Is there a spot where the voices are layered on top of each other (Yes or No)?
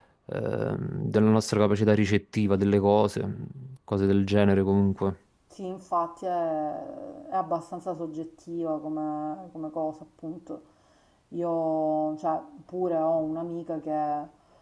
No